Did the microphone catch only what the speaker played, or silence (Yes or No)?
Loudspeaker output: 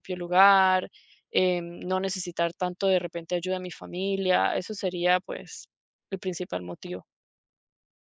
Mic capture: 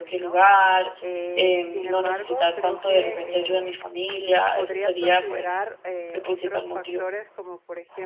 No